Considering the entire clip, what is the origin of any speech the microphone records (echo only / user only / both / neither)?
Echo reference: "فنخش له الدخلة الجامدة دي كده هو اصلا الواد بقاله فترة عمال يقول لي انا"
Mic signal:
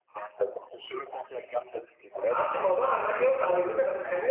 both